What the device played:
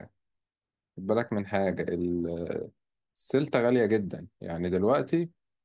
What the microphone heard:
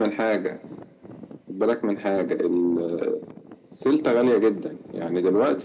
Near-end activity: none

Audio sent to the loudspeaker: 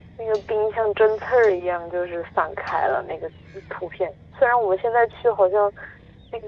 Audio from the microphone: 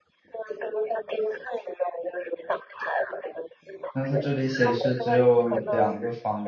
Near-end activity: present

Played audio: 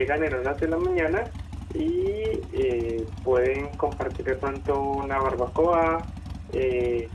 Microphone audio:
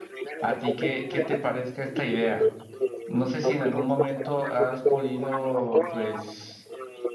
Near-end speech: present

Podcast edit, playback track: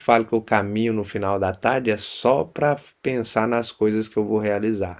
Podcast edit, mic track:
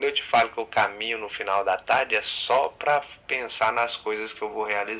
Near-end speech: none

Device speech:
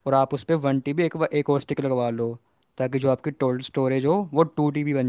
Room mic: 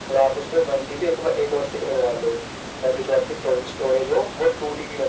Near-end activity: none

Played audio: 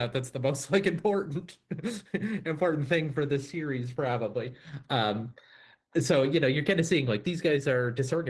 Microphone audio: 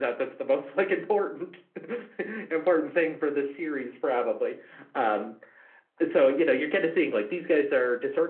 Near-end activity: none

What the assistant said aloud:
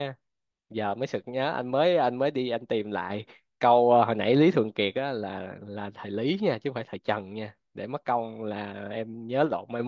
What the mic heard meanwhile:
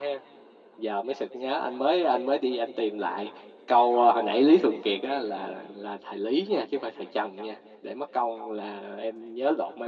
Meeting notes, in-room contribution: none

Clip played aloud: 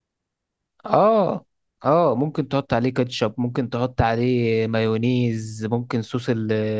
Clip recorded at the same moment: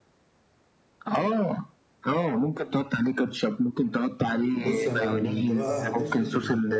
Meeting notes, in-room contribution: present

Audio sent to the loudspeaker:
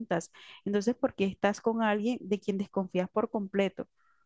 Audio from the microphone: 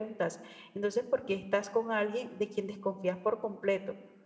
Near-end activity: none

